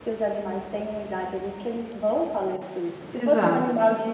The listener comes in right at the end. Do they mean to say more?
No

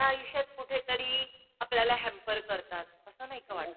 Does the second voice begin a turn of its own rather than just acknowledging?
Yes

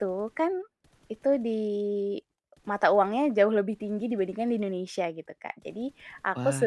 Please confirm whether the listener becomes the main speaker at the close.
No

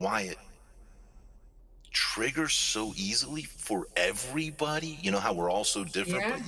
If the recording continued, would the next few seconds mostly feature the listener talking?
No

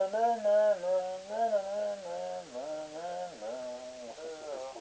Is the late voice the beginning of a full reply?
Yes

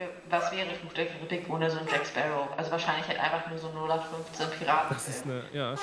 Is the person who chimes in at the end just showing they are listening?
No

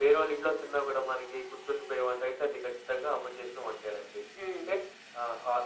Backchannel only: Yes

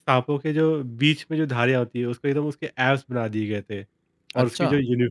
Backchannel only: Yes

